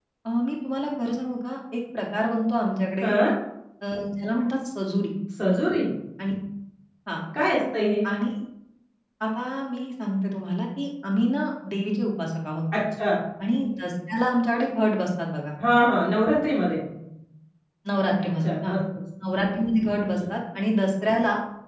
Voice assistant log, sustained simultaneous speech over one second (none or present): none